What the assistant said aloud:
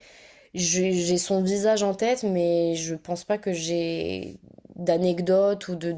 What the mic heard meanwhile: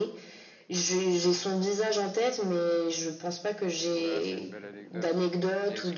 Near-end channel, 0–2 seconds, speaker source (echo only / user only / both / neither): echo only